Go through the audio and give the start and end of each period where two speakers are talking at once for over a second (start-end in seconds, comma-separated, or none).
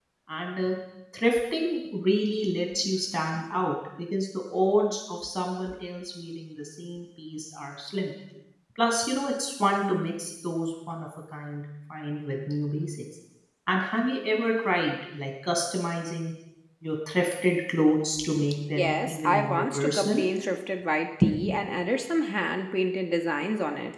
18.8-20.2